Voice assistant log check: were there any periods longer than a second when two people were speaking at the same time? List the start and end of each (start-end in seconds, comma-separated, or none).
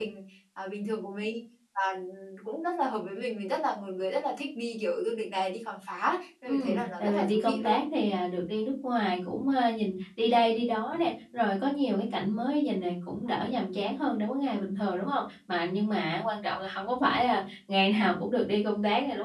6.5-7.8